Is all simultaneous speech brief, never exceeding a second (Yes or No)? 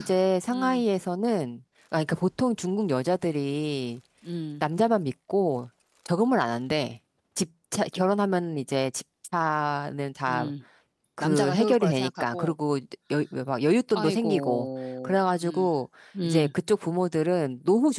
No